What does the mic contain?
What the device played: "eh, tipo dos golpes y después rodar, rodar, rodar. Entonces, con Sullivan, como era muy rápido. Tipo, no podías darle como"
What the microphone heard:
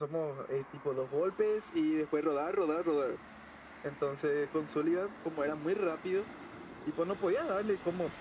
echo only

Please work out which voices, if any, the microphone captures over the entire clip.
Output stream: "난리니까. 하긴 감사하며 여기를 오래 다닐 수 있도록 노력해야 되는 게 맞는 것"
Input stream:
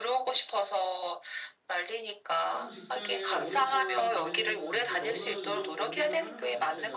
both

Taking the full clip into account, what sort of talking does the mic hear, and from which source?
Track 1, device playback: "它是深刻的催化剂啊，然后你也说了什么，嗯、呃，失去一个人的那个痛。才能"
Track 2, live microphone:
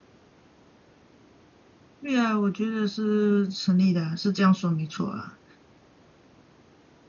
user only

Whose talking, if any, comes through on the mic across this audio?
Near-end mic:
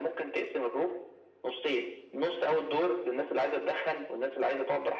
echo only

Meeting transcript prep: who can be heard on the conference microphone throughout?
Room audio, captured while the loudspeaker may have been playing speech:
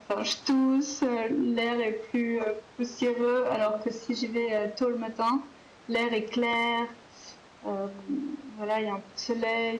echo only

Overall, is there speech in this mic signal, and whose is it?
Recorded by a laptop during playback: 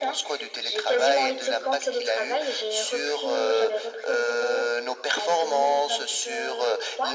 echo only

